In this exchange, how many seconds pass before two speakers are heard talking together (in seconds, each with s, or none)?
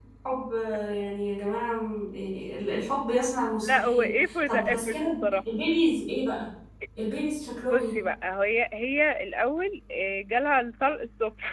3.6 s